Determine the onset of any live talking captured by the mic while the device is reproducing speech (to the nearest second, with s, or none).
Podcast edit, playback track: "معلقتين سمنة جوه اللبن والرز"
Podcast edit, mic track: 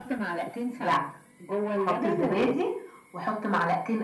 1 s